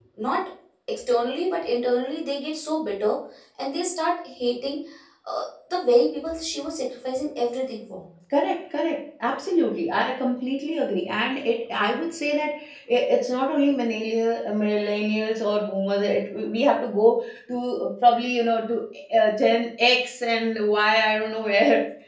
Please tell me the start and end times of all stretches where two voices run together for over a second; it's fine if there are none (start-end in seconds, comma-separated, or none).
none